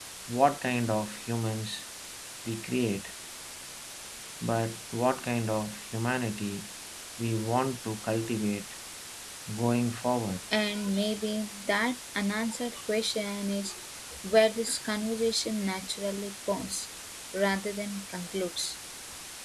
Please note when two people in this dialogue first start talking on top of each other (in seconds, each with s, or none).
none